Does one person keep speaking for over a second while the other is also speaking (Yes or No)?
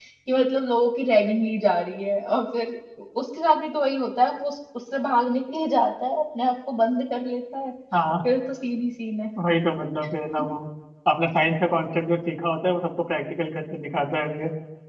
No